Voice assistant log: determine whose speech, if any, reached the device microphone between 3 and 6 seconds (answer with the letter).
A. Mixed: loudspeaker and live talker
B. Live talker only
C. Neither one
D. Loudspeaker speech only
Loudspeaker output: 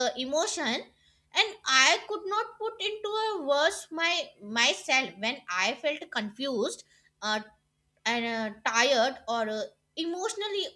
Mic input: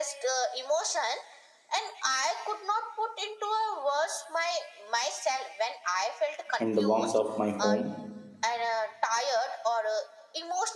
D